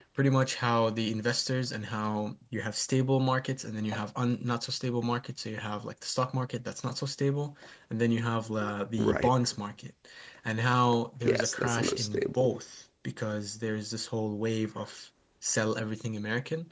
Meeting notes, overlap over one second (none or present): present